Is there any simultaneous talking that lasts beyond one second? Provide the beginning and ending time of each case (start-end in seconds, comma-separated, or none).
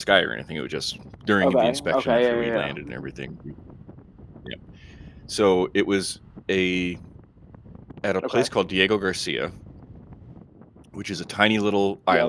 1.4-3.1